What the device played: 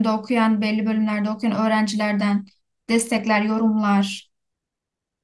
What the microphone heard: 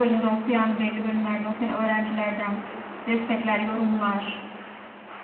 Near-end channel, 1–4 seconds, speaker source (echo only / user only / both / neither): echo only